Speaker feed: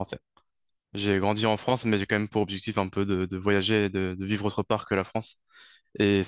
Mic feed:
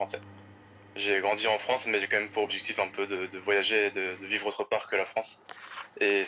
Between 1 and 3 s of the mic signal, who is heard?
echo only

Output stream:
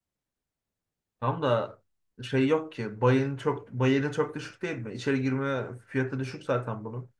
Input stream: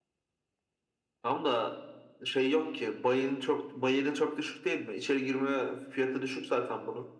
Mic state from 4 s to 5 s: echo only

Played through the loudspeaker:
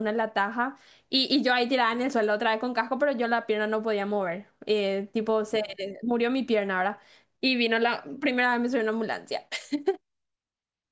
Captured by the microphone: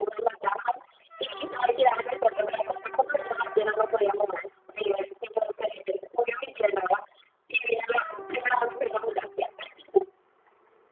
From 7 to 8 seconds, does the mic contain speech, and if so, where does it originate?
echo only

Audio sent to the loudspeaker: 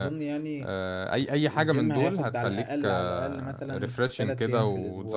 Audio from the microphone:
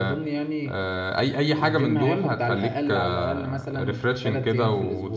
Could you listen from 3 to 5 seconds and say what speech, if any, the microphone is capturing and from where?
echo only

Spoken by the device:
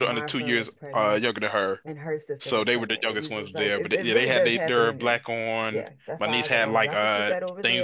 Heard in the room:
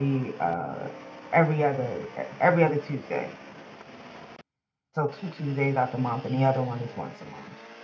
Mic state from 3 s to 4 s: user only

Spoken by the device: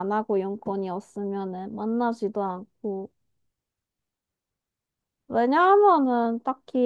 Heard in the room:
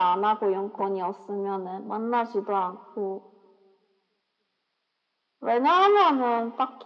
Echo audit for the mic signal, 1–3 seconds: echo only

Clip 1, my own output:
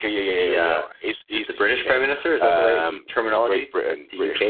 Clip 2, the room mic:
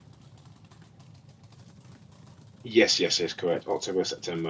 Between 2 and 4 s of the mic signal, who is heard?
user only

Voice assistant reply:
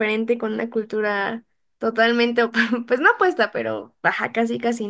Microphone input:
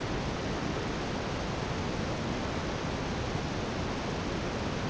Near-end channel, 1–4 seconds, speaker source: neither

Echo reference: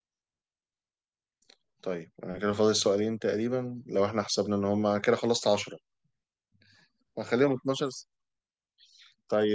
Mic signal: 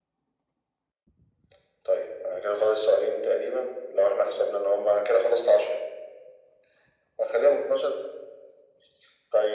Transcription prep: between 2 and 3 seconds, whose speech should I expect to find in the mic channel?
echo only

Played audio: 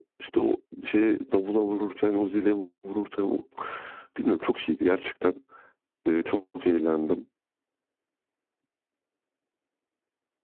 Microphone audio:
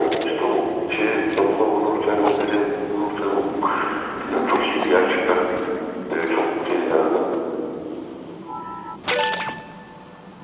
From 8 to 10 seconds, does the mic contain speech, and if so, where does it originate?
neither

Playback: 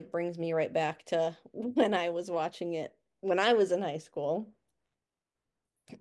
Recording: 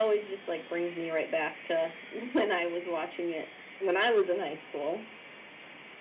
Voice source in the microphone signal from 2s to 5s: echo only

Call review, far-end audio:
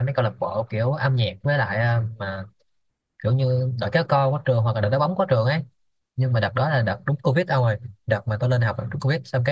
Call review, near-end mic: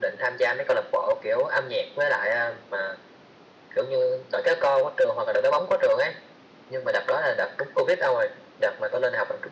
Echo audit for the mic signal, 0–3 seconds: echo only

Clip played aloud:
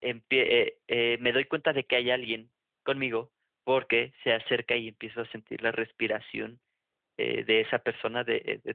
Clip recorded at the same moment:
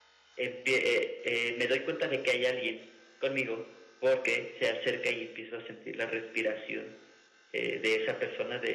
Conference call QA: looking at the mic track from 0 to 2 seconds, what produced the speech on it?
echo only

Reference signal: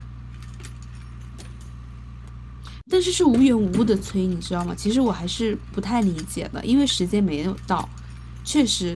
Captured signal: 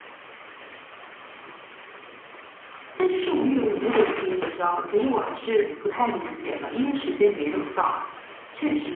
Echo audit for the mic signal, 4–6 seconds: echo only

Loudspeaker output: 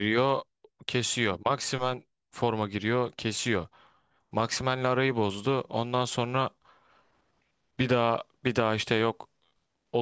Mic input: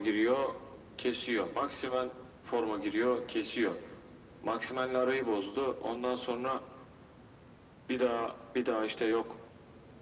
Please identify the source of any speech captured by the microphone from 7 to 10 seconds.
echo only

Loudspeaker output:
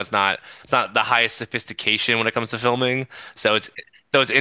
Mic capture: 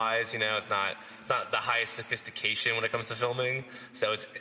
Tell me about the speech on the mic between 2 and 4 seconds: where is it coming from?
echo only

